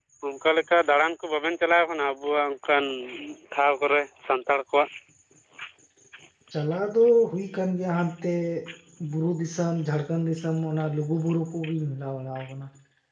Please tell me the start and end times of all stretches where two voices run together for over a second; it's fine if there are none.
none

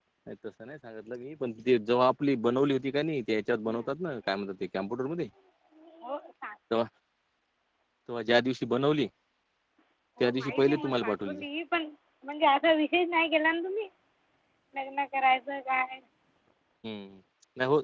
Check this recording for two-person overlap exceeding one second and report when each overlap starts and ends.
10.2-11.4

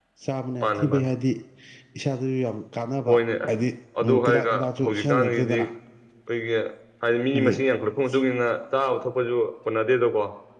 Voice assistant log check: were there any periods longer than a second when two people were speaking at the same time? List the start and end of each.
4.3-5.6

